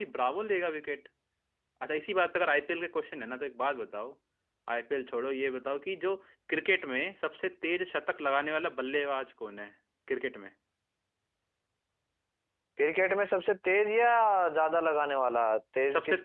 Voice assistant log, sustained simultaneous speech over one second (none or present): none